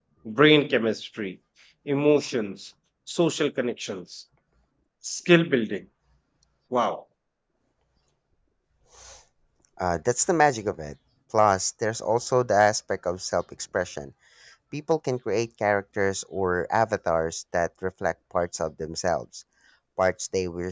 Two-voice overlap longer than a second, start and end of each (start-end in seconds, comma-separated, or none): none